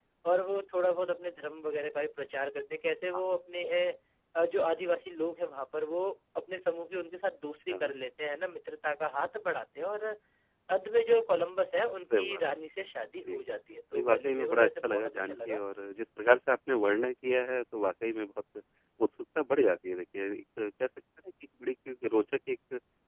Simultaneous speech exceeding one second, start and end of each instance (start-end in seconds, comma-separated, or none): 13.9-15.6